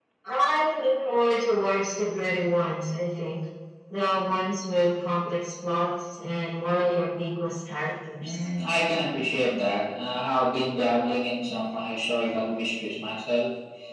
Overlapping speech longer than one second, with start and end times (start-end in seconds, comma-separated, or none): none